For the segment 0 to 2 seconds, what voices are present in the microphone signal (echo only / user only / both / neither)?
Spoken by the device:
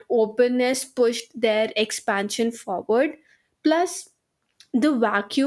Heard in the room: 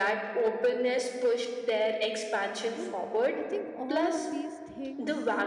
echo only